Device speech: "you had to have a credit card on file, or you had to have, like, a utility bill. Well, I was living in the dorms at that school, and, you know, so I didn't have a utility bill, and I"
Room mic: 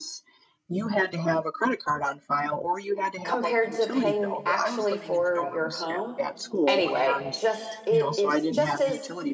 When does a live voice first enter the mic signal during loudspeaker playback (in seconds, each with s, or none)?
3.2 s